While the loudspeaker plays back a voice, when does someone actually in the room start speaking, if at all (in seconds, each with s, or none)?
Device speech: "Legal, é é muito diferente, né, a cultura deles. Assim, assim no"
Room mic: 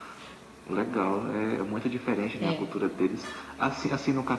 2.4 s